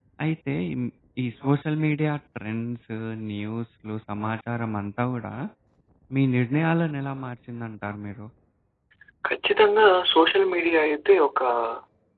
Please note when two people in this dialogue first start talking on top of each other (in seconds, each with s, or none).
none